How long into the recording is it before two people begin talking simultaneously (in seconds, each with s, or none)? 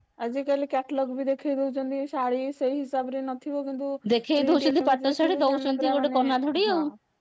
4.4 s